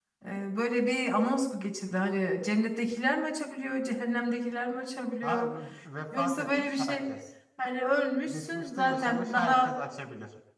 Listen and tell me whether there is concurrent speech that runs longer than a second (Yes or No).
Yes